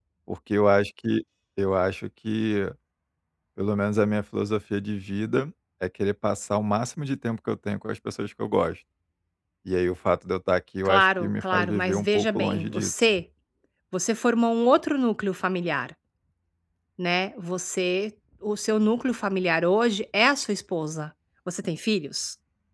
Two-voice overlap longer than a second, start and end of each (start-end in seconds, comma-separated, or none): 10.8-12.9